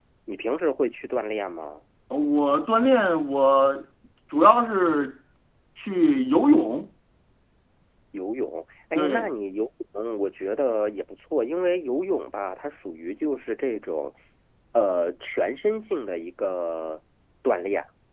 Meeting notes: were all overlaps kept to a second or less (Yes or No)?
Yes